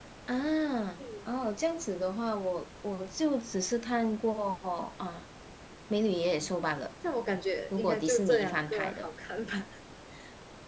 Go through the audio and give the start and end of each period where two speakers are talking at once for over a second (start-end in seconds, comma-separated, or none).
7.8-9.1